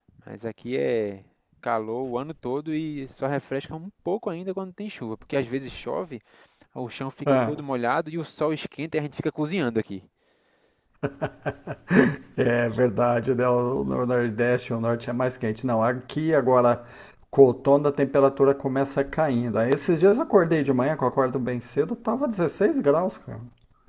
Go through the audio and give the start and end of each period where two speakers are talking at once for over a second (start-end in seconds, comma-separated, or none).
none